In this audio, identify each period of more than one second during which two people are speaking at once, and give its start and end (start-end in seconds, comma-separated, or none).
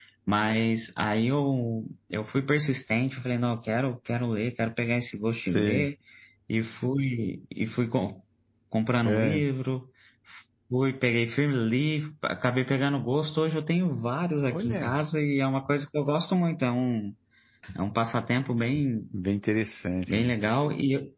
none